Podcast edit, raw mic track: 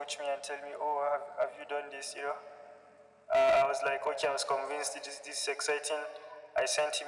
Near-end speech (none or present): none